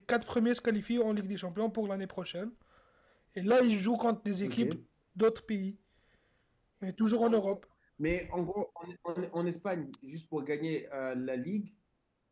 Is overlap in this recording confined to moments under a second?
Yes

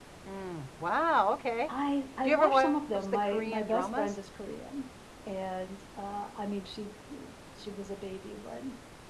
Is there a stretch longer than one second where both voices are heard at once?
Yes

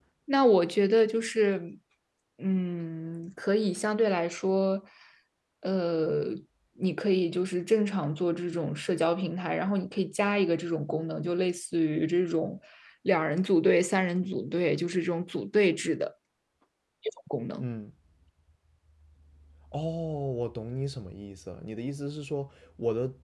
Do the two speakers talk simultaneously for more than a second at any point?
No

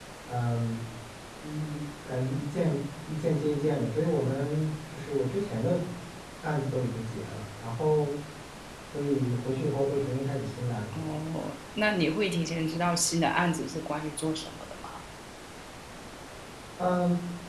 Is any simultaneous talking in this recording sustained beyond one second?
No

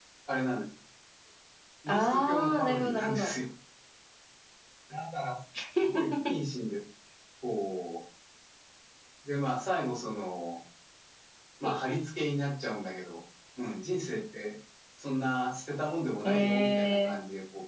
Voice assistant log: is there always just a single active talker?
No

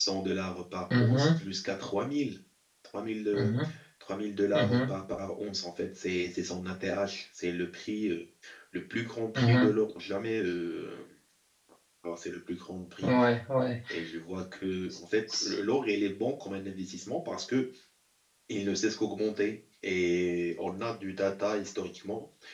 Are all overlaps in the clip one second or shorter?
Yes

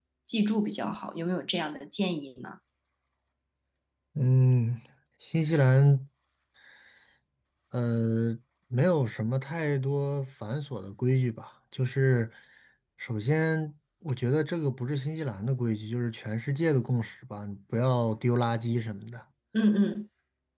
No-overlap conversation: Yes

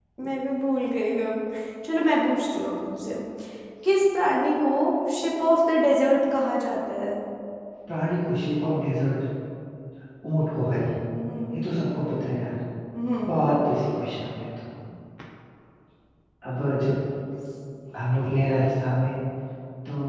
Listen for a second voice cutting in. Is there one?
No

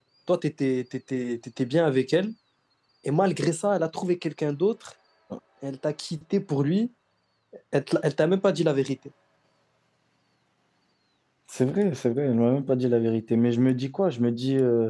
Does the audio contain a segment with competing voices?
No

